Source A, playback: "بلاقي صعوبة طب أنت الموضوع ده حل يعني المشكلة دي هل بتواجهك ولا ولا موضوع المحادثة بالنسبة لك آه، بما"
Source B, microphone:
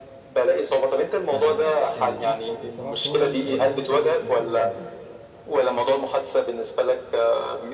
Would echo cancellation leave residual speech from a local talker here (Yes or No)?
Yes